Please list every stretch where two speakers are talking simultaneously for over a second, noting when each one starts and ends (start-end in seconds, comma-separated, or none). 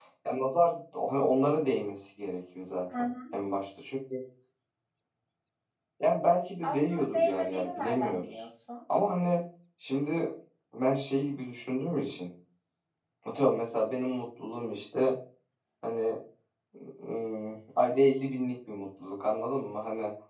6.6-8.4